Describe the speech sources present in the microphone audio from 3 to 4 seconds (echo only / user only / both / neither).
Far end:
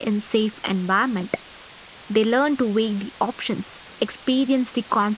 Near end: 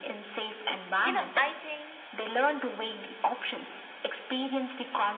echo only